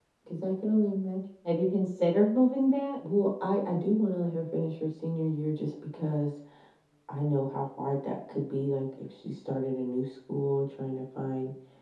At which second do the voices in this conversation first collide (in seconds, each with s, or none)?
none